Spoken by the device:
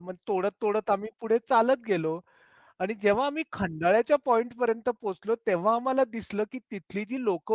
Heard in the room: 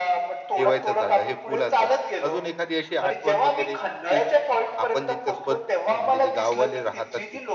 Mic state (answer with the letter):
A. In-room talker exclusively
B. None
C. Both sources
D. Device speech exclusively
C